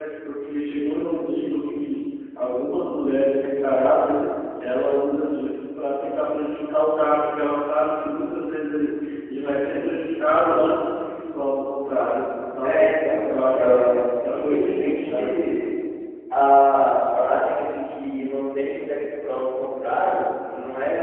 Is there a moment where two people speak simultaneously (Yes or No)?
Yes